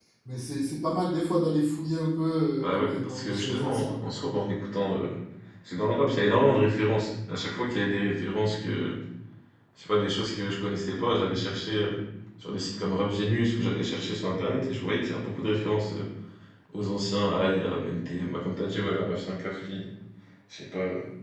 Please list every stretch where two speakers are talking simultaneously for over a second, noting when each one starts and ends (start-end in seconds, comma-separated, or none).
2.6-3.9